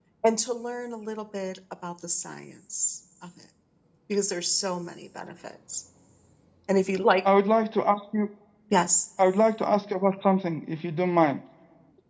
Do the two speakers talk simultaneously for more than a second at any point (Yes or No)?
No